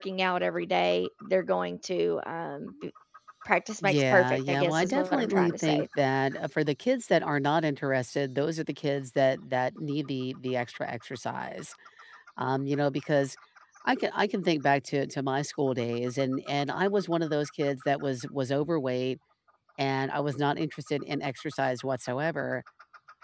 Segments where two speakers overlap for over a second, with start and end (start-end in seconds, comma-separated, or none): 3.8-5.9